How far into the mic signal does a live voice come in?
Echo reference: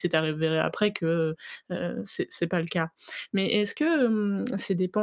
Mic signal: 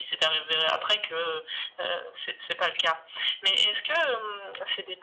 none

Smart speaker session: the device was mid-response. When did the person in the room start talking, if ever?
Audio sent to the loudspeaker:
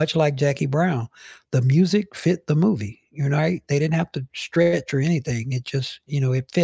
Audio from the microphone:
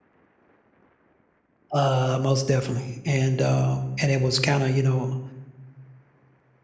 1.7 s

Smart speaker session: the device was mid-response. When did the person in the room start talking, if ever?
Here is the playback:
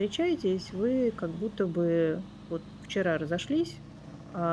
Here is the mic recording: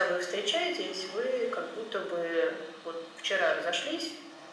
none

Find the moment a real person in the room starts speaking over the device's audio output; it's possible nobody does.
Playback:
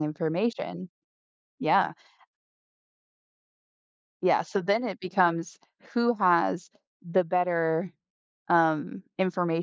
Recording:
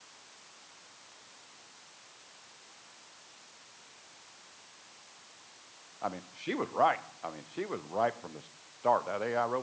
6.0 s

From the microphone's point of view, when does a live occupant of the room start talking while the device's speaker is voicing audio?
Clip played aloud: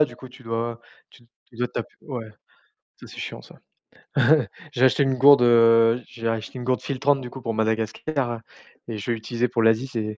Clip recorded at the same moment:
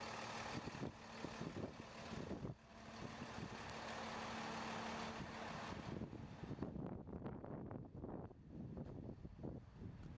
none

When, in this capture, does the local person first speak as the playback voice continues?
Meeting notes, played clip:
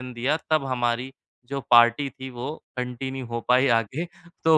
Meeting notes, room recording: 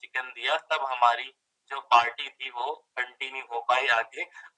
none

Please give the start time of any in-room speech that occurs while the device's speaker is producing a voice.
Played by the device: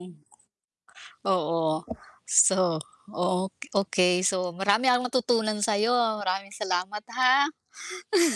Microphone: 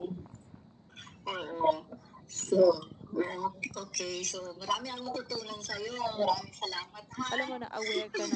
7.3 s

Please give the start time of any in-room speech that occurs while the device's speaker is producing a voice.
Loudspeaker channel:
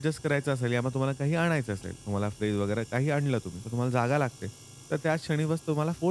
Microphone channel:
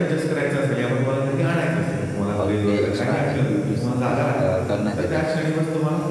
2.4 s

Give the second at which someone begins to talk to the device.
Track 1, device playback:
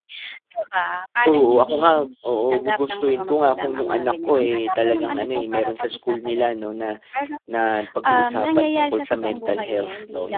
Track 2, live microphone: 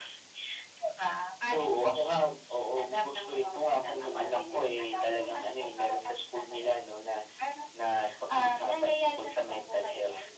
none

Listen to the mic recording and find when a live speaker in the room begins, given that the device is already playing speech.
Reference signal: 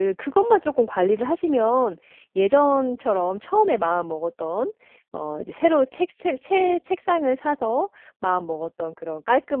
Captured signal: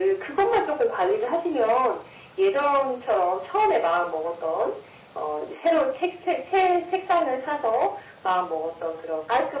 none

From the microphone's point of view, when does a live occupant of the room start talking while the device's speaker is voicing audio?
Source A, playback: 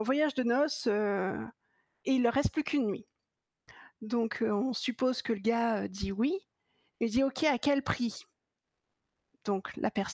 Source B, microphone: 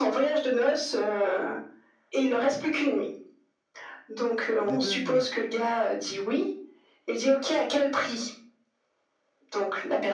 4.6 s

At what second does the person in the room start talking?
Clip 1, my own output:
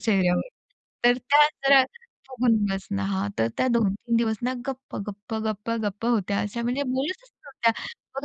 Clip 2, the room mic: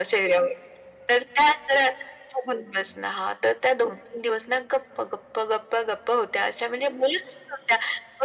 none

